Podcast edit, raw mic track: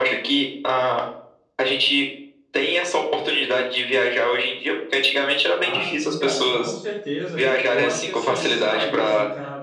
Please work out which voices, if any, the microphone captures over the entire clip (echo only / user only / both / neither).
both